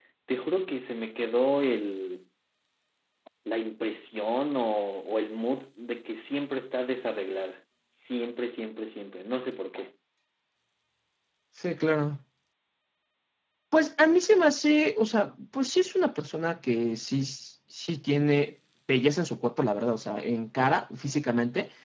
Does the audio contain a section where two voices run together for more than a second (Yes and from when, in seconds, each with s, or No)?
No